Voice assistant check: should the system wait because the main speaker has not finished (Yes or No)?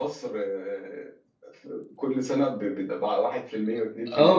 No